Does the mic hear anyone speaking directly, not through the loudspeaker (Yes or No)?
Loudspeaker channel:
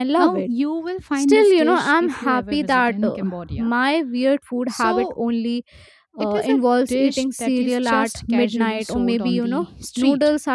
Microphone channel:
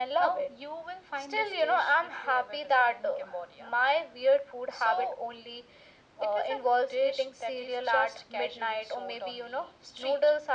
No